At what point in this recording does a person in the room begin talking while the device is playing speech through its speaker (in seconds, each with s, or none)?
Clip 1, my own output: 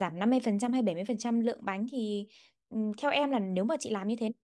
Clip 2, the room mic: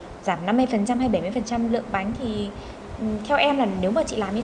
none